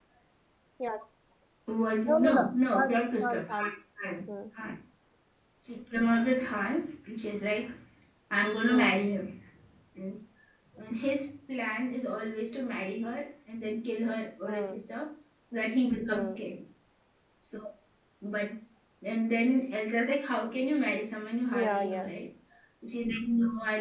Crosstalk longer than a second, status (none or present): present